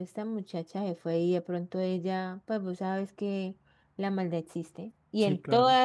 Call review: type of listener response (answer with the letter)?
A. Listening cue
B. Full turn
A